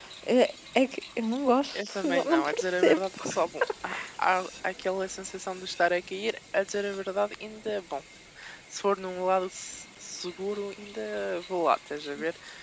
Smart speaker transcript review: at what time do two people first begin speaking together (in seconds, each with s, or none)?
1.7 s